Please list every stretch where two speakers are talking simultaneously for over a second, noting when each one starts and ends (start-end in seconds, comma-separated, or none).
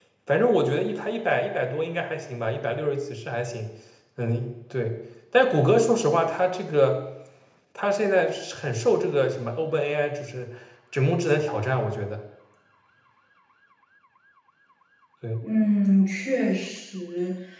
none